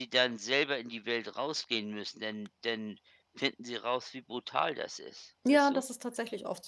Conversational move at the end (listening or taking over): taking over